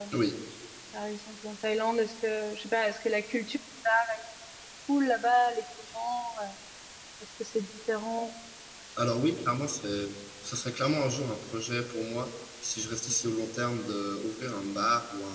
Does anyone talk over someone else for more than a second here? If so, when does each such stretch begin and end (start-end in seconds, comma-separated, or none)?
none